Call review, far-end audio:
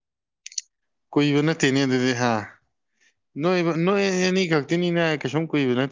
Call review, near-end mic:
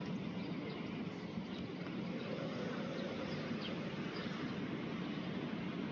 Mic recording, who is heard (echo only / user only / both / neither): neither